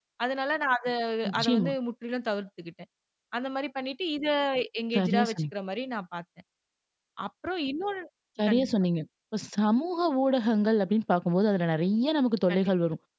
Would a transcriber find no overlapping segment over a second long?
Yes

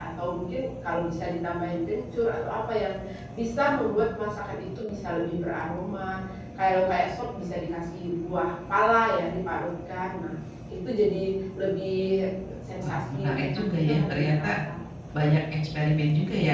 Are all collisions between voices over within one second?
No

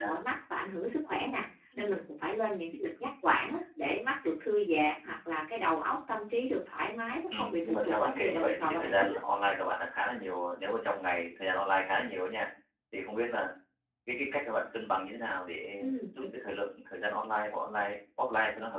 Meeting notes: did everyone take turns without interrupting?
No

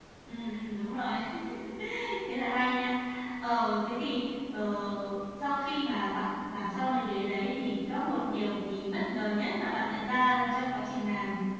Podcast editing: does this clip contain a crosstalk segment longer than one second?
No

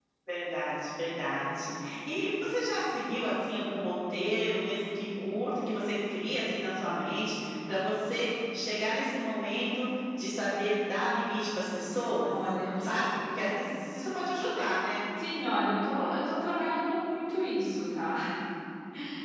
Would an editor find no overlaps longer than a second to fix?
Yes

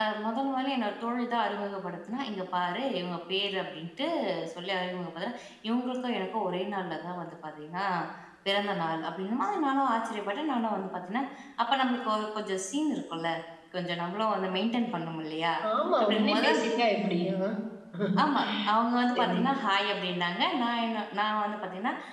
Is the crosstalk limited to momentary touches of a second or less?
Yes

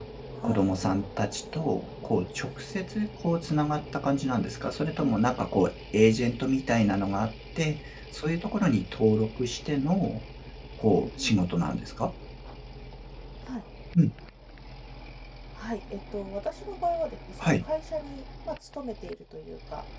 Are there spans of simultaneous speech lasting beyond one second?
No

